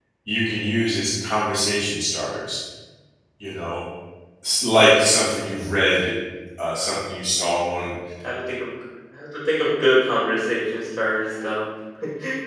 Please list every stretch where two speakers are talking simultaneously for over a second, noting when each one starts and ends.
none

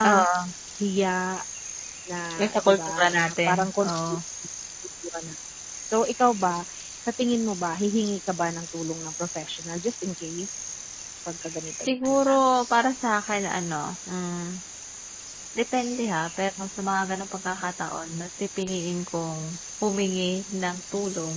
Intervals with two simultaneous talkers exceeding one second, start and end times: 2.6-4.2

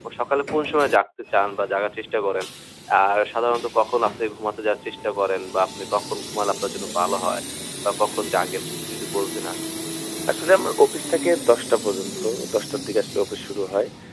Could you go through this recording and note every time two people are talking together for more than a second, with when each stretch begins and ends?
none

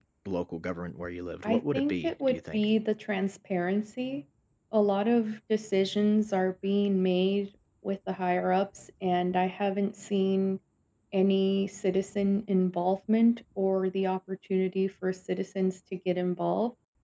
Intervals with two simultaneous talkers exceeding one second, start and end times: 1.4-2.6

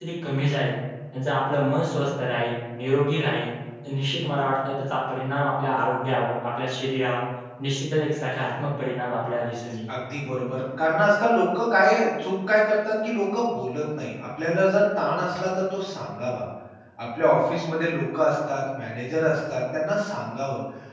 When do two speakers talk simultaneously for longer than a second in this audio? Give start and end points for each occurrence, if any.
none

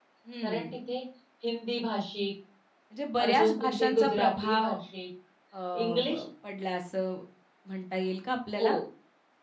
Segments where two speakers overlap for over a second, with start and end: 3.2-4.7

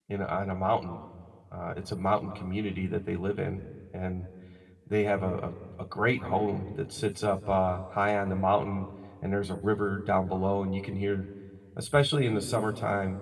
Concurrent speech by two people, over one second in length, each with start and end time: none

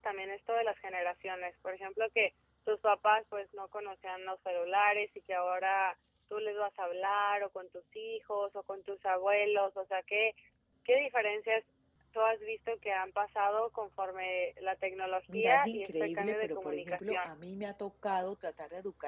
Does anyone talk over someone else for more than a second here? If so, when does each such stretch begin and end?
15.3-17.3

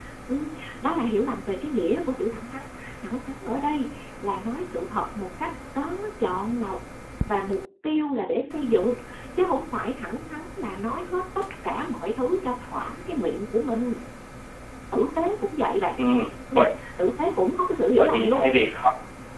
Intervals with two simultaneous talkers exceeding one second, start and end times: none

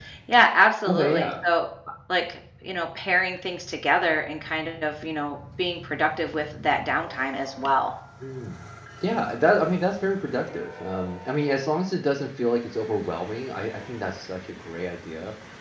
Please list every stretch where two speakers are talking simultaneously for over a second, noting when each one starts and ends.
none

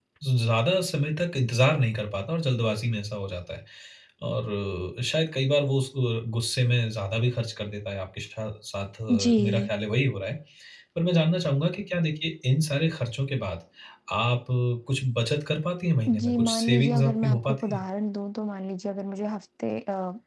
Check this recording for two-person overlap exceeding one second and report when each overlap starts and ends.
16.1-17.8

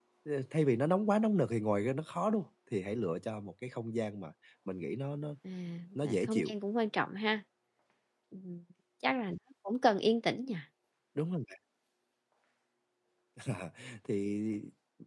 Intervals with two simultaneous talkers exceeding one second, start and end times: none

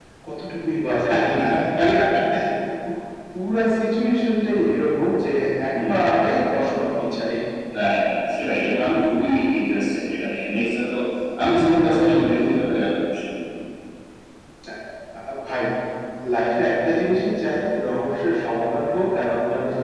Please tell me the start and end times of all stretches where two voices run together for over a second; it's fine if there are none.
none

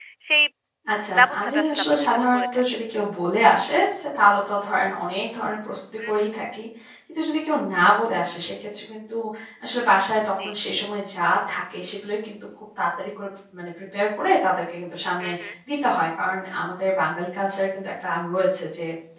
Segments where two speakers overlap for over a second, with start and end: 1.2-2.6

